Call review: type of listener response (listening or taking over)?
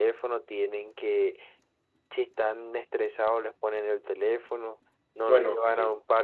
listening